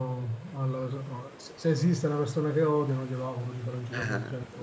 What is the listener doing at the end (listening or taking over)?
taking over